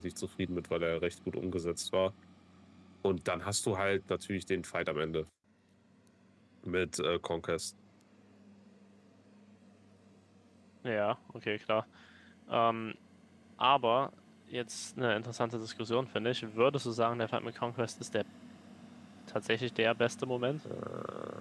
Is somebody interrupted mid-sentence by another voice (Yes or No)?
No